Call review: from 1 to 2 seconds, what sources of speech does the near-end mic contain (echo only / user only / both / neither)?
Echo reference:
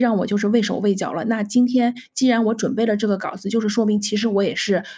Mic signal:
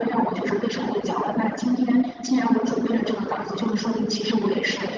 echo only